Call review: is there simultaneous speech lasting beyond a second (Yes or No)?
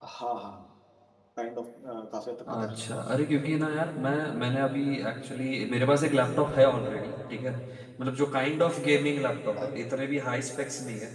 No